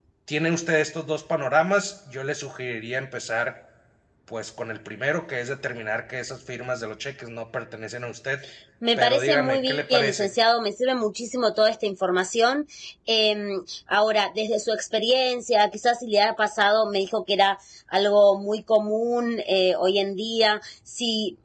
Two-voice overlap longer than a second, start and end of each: 9.0-10.3

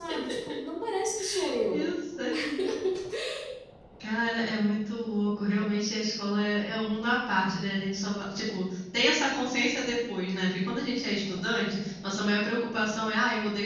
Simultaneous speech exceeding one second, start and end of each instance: none

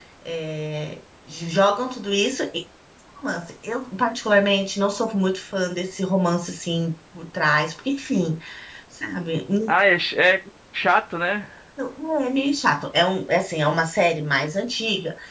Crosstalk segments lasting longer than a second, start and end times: none

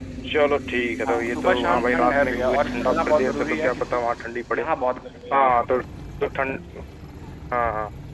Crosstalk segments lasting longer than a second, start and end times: 1.1-4.0

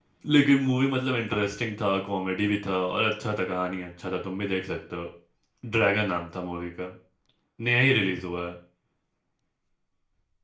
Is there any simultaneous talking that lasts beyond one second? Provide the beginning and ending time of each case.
none

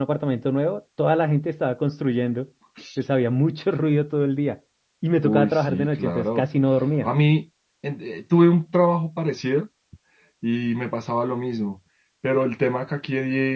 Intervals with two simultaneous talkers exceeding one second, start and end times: 5.2-6.4

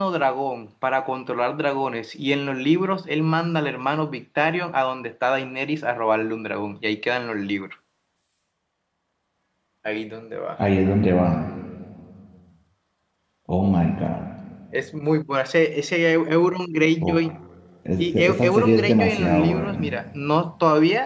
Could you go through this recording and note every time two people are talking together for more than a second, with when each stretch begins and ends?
18.0-20.0

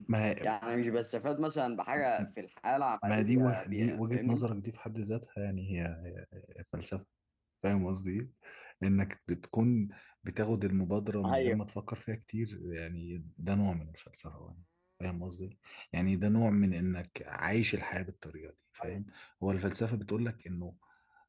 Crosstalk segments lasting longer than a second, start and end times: 3.0-4.4

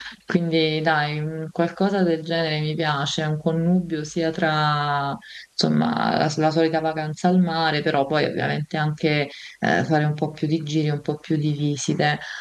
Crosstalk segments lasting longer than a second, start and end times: none

